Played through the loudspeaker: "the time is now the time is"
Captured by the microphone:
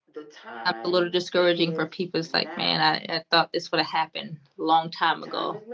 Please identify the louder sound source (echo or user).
user